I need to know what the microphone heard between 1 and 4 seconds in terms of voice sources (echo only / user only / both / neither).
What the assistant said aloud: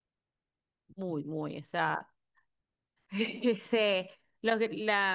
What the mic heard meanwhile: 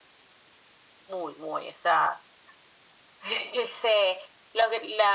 echo only